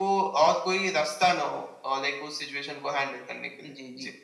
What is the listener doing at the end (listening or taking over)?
taking over